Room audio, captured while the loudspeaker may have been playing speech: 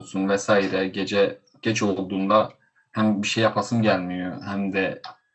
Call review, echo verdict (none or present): present